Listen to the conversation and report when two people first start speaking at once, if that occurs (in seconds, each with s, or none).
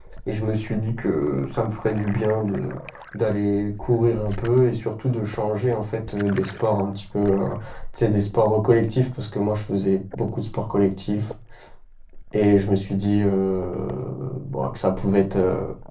none